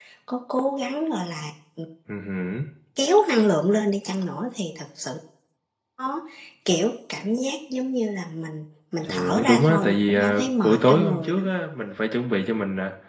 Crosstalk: present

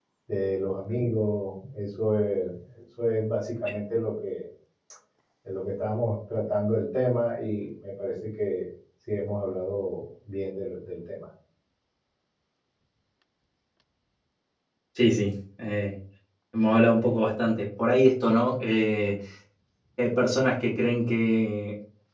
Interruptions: none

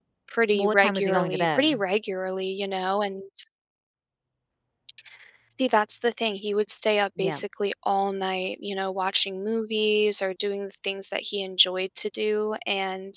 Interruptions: present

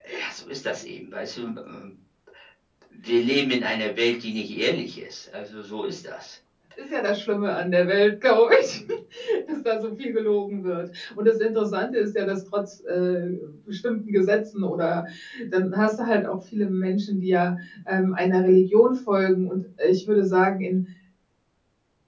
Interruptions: none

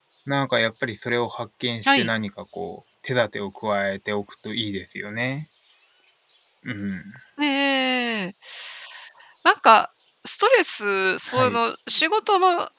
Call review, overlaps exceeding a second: none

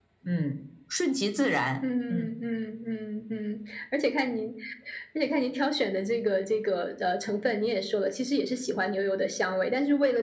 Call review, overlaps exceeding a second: none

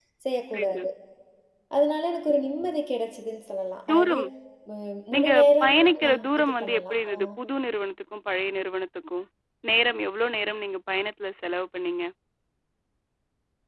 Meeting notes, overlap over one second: present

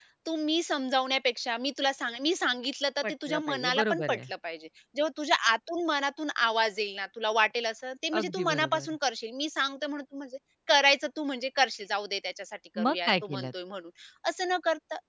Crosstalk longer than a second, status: present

